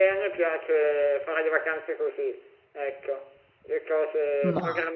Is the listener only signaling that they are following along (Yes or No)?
Yes